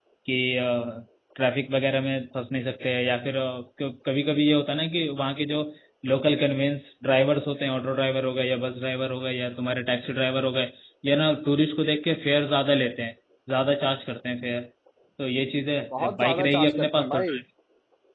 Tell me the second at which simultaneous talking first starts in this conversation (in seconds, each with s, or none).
15.9 s